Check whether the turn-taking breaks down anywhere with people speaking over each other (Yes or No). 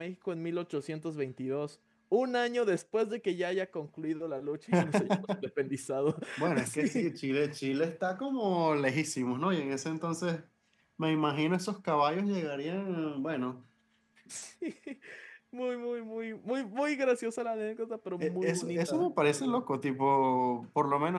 Yes